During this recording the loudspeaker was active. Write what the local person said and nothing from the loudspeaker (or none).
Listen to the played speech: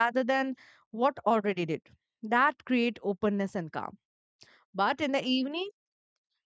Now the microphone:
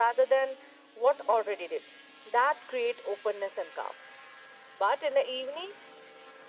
none